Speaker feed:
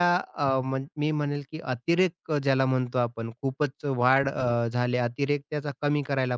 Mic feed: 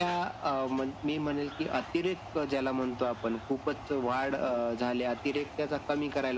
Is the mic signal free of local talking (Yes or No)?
Yes